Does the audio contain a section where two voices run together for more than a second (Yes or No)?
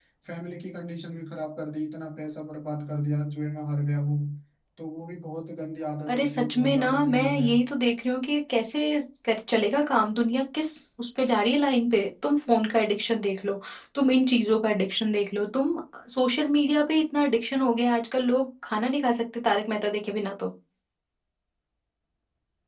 Yes